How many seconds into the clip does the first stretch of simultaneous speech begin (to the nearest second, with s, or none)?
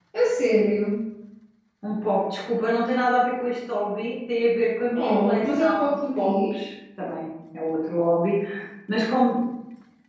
5 s